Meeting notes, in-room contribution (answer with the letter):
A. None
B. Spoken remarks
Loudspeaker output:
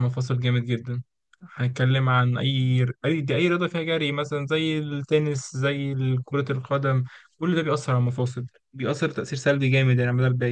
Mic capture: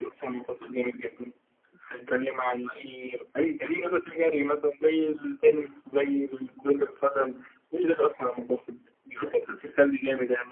A